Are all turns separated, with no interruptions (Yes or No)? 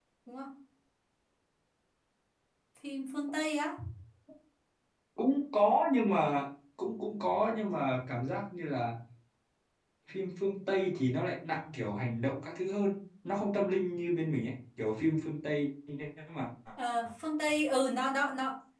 Yes